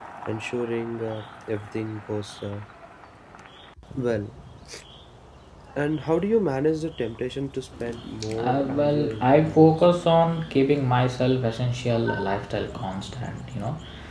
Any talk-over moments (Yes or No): Yes